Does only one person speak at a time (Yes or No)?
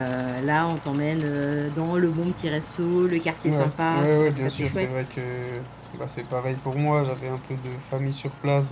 No